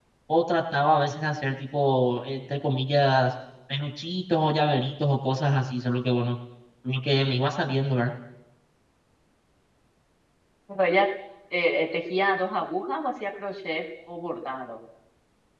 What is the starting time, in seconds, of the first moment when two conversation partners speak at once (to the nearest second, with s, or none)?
none